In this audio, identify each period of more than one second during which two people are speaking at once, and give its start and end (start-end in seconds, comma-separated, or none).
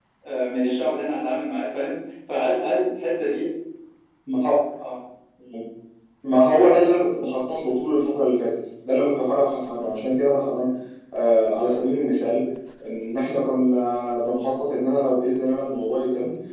none